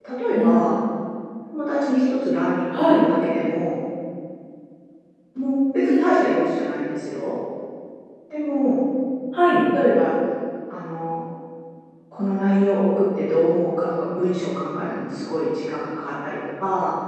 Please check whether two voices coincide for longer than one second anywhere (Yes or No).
No